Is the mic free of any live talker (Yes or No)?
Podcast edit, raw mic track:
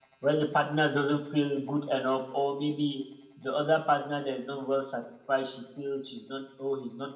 Yes